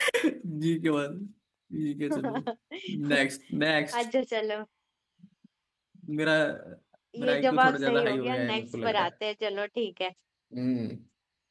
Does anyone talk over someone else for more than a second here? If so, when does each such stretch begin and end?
7.2-9.1

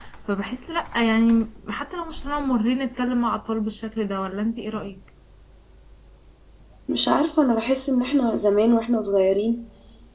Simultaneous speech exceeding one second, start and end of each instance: none

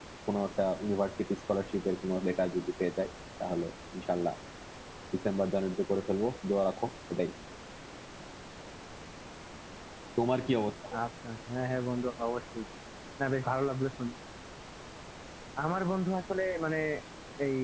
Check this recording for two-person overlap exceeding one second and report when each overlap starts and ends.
none

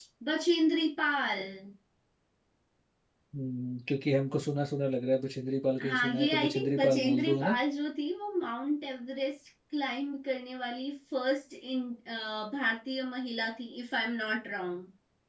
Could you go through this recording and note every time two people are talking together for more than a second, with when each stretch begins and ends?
5.8-7.5

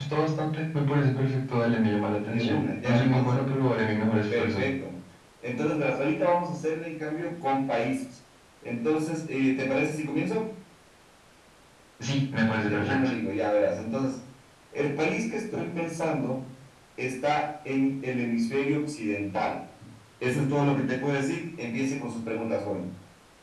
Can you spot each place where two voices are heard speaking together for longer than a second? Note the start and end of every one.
2.2-3.4

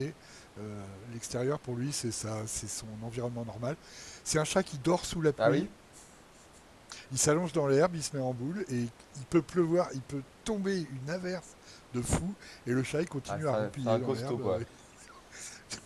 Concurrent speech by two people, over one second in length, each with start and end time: 13.3-14.6

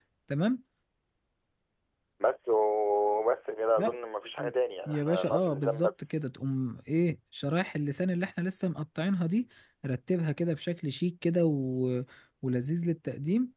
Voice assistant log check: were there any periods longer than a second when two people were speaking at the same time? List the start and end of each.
4.9-6.1

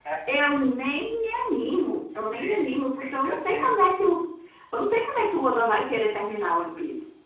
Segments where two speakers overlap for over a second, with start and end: 2.1-3.7

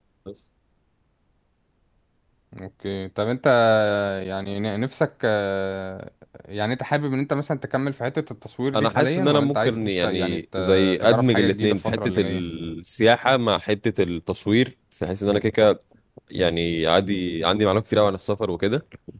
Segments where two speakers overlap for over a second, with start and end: 8.7-12.4

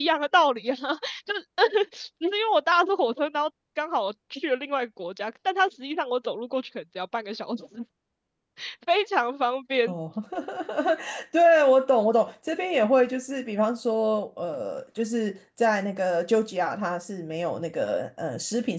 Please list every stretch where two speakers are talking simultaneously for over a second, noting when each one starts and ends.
none

